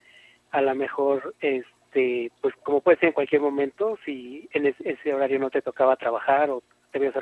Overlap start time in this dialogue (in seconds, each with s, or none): none